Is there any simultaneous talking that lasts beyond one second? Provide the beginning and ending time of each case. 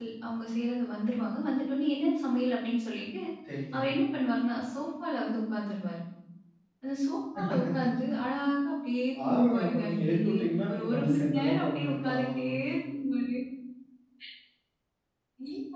9.3-12.5

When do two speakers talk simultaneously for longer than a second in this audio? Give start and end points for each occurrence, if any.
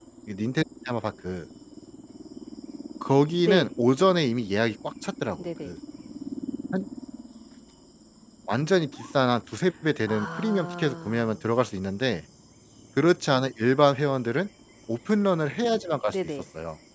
10.1-11.3

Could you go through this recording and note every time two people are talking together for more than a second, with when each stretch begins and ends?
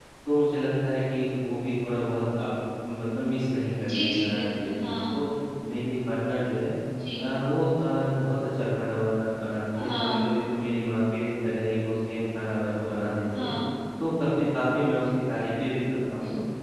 3.9-5.2

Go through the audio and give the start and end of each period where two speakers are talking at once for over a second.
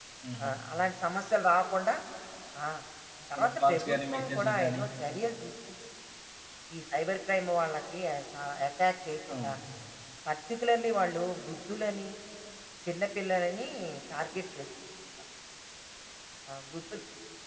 3.4-4.8

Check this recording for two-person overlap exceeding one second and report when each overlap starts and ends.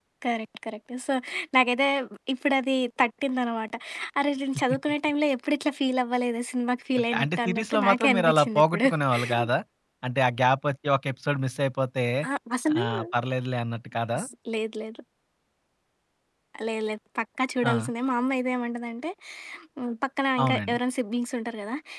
7.1-8.9

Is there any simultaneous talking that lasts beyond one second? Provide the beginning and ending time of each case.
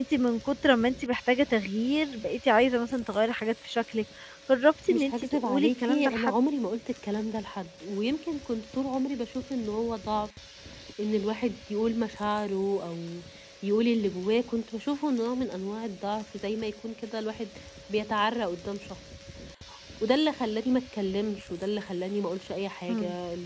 4.9-6.3

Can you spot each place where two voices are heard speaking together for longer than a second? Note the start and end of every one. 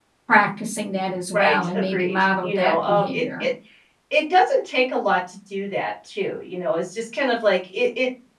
1.3-3.5

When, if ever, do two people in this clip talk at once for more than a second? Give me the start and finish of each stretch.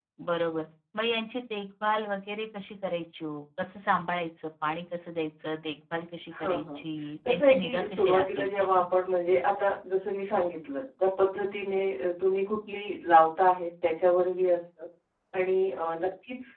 7.3-8.8

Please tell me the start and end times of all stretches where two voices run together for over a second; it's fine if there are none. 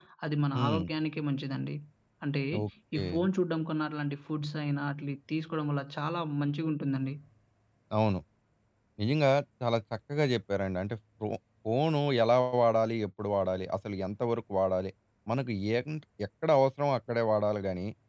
none

